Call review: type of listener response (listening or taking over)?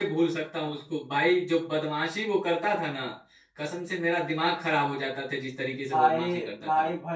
taking over